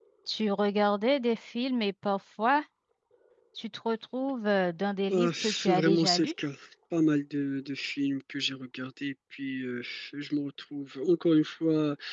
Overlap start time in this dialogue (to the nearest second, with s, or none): 5 s